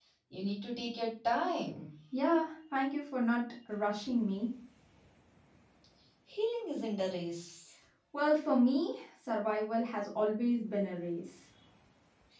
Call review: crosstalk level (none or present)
none